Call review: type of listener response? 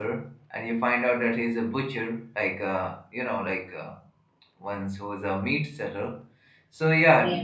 listening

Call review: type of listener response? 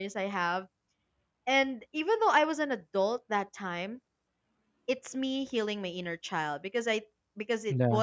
listening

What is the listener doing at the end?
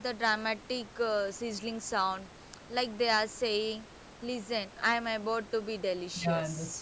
taking over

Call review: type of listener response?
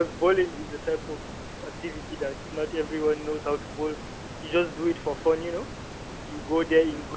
listening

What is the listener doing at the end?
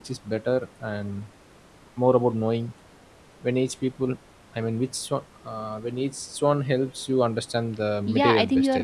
taking over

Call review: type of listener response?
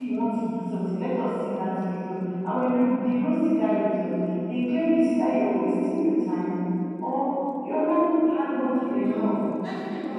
taking over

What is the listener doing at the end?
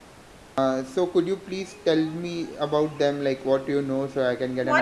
taking over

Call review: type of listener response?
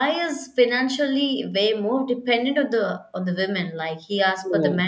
listening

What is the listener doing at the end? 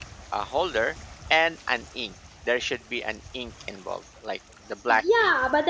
taking over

